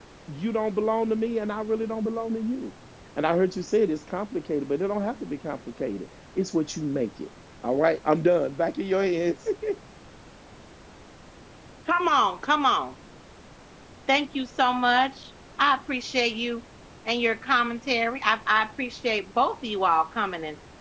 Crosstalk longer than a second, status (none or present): none